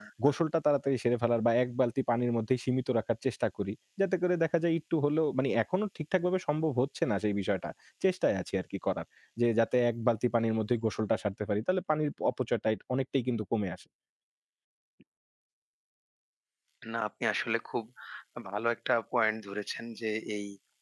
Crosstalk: none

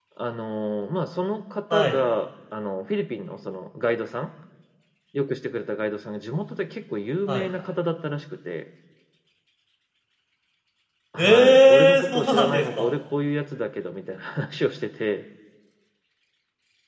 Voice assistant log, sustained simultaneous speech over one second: present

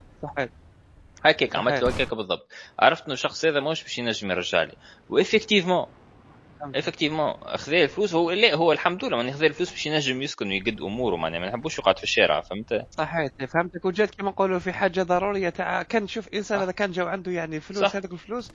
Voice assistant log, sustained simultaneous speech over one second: none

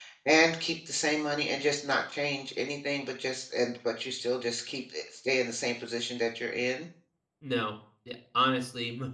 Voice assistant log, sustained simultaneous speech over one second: none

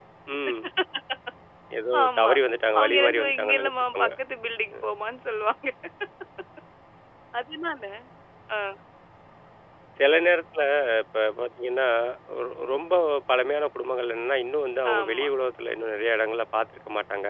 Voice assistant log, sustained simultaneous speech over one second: present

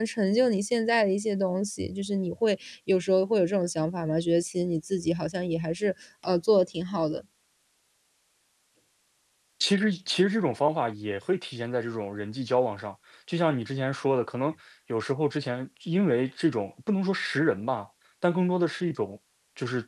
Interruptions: none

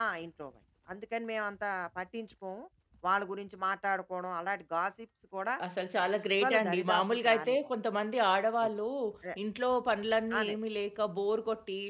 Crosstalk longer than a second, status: present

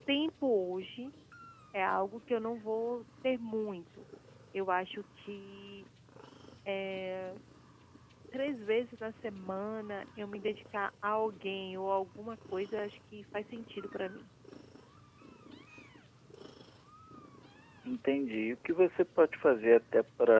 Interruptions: none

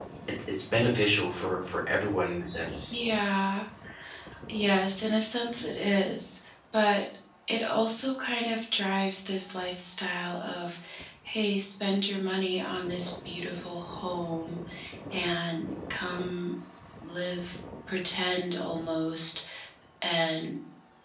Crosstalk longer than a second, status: none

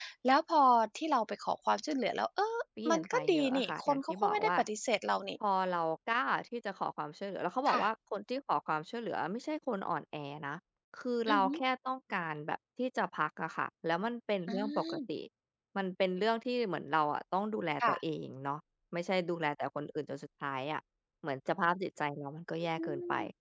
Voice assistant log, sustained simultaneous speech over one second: present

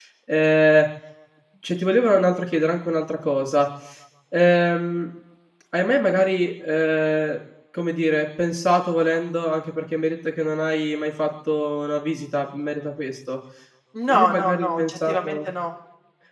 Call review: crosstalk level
present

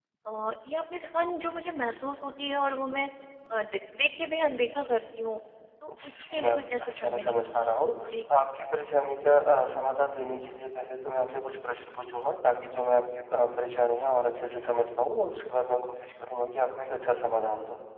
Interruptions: present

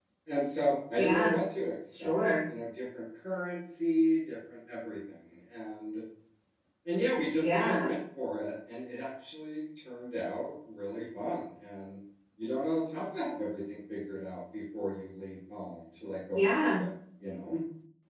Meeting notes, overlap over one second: none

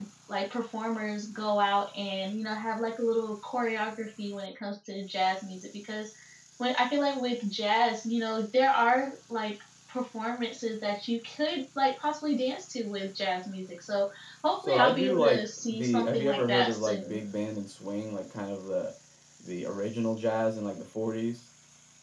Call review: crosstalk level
present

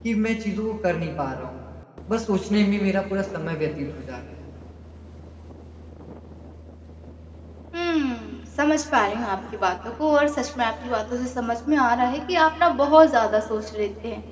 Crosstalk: none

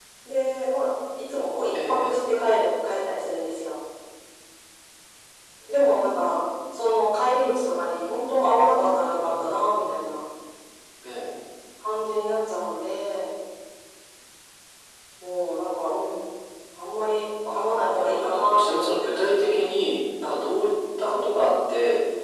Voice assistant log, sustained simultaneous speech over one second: present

